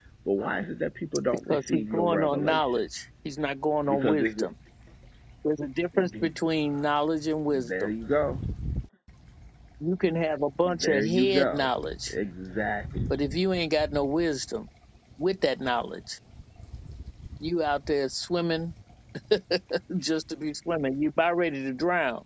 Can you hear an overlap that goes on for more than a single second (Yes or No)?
Yes